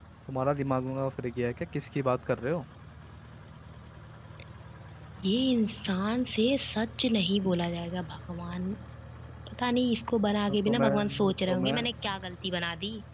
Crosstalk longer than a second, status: present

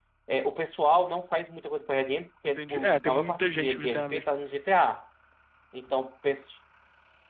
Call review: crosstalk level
present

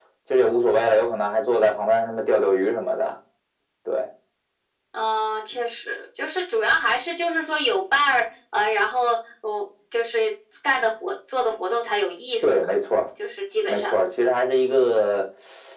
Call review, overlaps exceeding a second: none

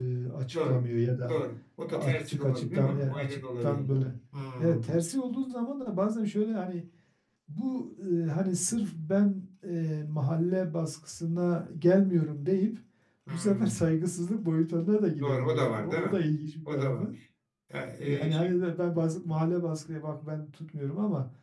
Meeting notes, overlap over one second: present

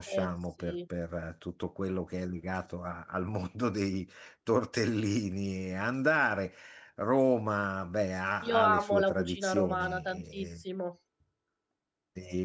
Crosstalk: present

